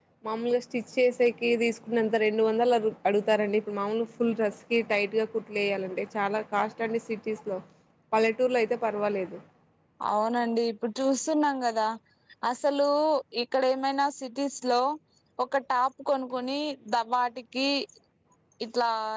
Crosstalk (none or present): none